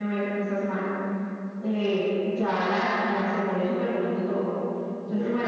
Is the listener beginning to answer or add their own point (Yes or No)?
No